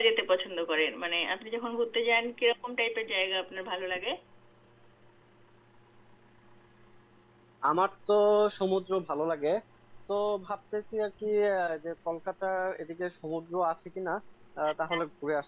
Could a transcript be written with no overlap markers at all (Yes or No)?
Yes